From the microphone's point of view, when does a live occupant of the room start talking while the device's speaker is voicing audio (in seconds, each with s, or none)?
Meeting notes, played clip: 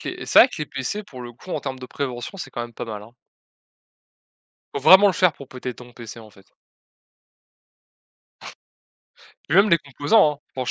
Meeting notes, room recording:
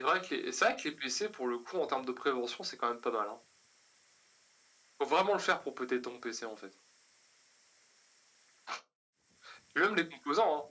none